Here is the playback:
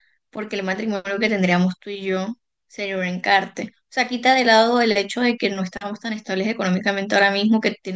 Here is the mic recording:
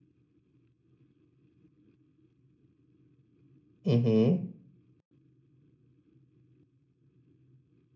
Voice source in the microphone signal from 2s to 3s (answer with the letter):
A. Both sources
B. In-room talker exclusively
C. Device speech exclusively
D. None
D